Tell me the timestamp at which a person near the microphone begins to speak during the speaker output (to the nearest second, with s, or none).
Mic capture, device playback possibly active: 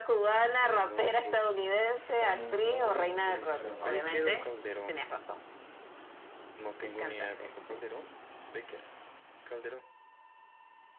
2 s